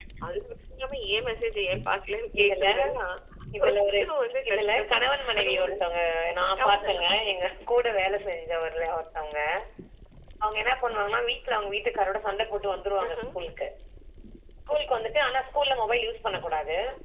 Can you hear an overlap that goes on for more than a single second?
Yes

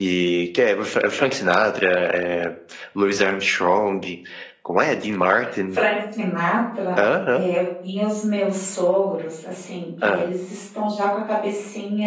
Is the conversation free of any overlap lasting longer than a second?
Yes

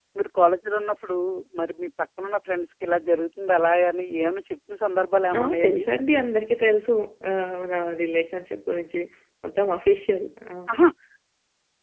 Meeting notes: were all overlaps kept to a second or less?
Yes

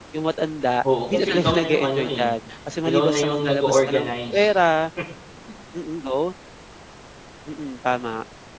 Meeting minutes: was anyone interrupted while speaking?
Yes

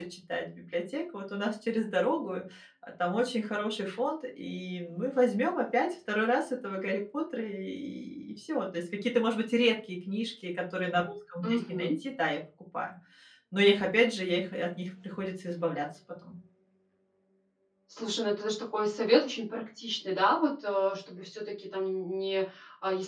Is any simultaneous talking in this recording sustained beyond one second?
No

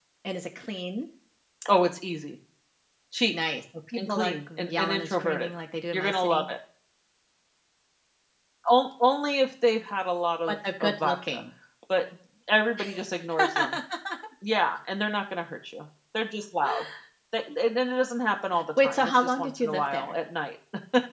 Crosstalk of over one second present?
Yes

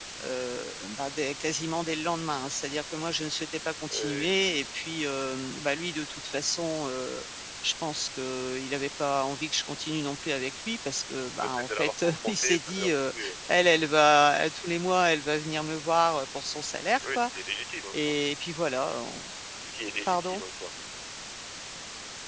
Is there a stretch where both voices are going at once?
Yes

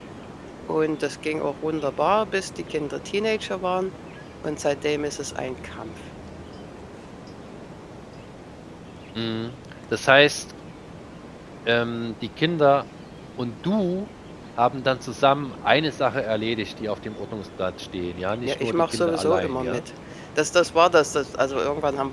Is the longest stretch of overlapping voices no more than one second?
No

